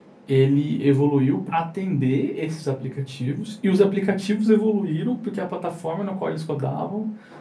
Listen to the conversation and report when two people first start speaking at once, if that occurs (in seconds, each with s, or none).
none